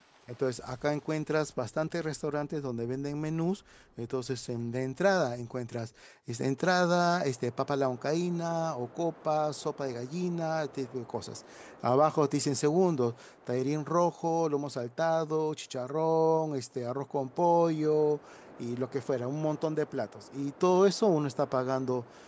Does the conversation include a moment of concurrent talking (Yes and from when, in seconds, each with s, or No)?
No